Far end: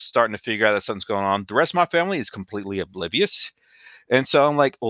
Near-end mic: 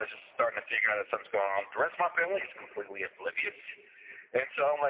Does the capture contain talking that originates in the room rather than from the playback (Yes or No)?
No